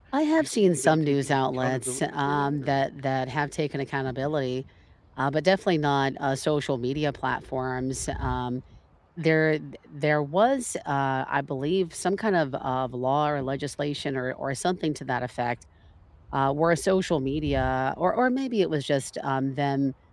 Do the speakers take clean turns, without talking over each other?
No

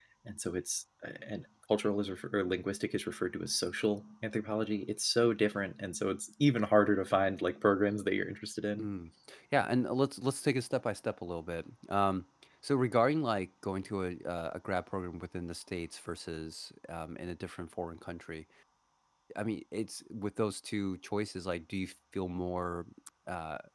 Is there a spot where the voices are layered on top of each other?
No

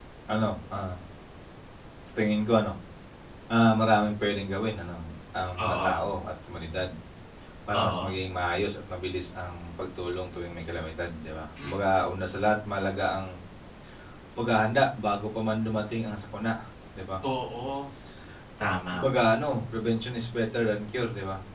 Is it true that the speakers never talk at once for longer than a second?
Yes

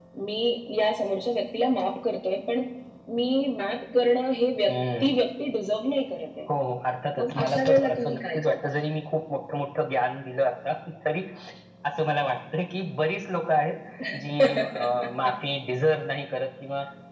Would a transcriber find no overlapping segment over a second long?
No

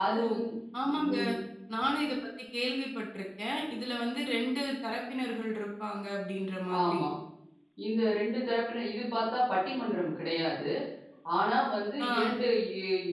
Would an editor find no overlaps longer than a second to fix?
Yes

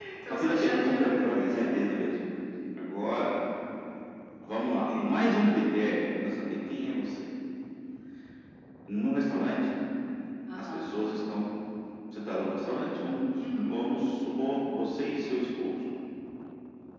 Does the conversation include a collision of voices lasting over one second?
Yes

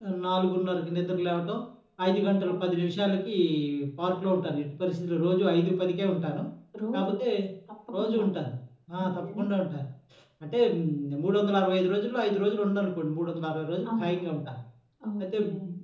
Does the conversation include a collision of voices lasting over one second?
No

